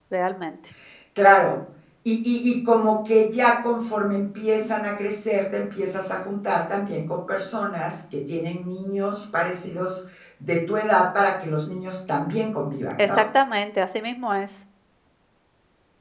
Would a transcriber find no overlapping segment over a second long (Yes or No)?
Yes